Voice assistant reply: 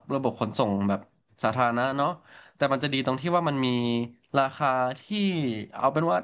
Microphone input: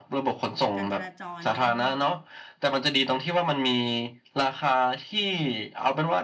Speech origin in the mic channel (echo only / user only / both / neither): both